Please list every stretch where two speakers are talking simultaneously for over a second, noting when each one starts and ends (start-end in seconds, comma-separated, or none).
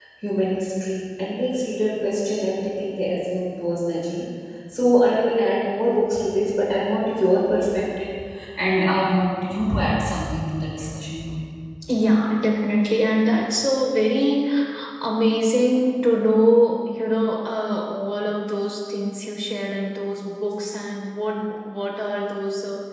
none